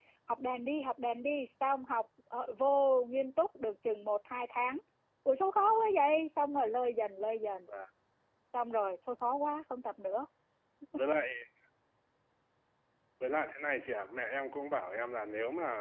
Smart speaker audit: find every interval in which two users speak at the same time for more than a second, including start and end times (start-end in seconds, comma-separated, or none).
none